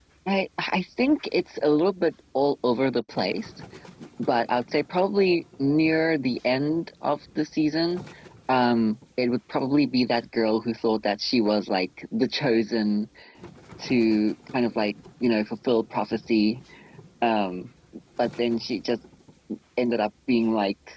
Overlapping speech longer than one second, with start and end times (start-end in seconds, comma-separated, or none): none